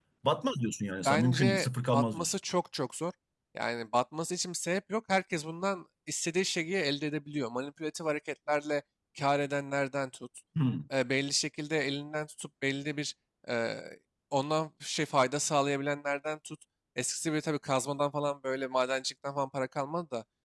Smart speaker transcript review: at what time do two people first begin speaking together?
1 s

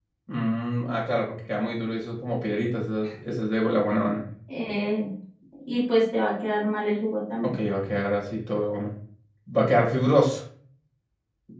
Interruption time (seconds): none

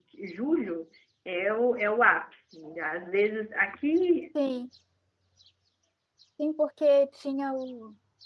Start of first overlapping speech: none

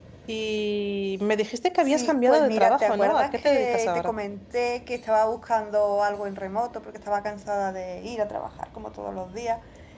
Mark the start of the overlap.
2 s

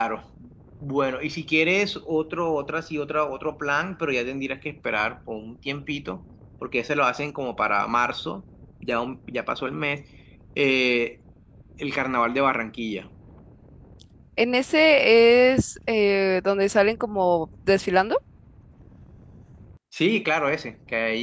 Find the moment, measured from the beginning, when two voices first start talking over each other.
none

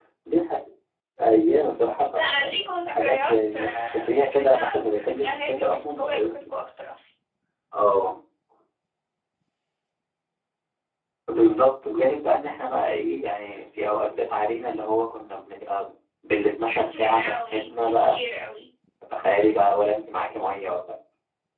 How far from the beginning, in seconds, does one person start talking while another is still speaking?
2 s

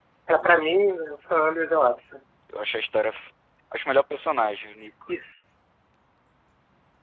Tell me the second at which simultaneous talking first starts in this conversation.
none

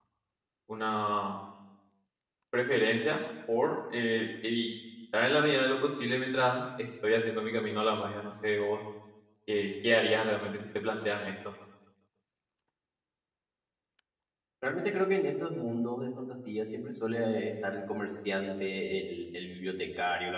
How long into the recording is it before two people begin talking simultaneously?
none

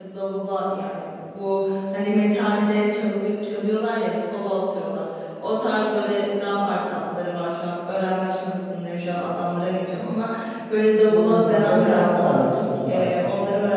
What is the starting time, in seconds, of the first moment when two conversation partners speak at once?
11 s

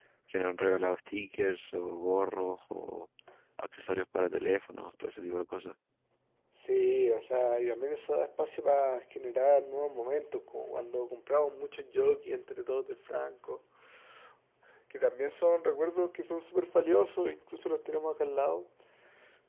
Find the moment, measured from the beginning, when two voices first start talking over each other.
none

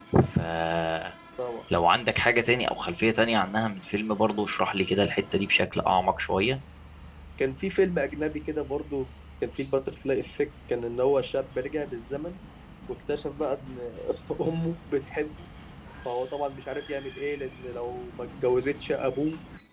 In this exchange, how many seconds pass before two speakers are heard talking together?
none

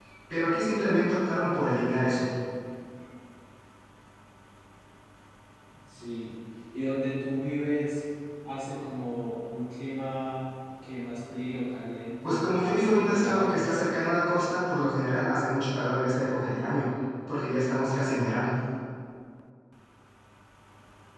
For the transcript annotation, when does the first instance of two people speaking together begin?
12 s

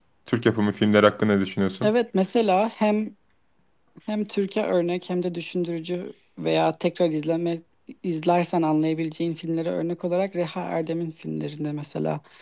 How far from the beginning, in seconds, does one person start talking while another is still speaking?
none

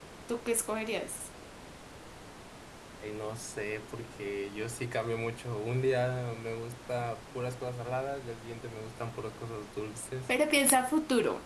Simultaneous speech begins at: none

